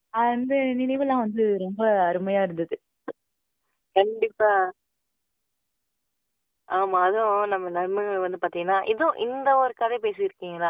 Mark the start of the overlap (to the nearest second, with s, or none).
none